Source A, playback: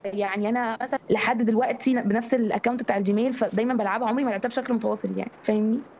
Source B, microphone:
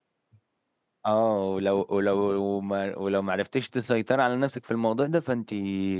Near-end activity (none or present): present